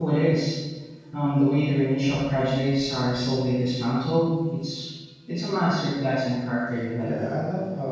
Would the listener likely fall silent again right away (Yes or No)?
No